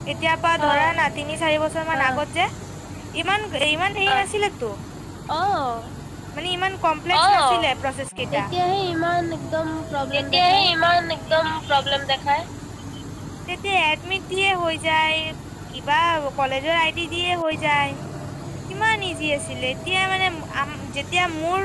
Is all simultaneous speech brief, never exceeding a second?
Yes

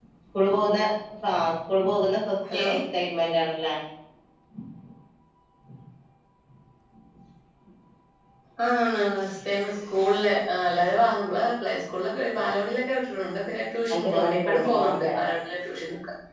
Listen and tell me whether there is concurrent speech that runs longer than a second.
Yes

